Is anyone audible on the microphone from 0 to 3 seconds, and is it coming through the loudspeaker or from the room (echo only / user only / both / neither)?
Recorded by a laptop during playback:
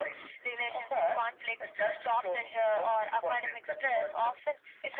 echo only